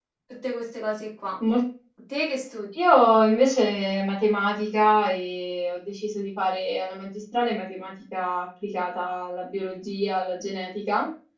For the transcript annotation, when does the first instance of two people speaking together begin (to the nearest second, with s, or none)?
none